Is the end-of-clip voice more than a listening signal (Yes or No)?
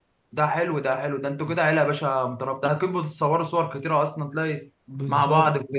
Yes